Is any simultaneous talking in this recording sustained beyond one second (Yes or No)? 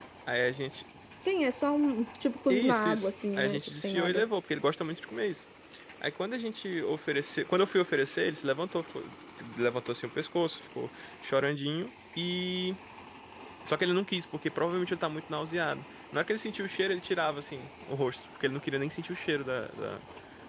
Yes